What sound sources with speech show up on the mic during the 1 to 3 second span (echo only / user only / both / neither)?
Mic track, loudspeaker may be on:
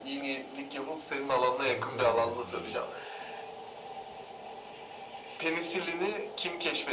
both